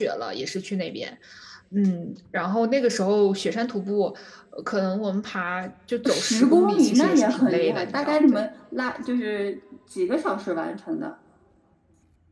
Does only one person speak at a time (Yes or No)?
No